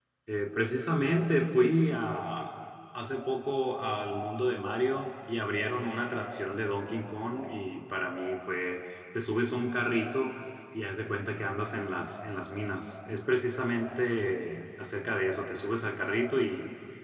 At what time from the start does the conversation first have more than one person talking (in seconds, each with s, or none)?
none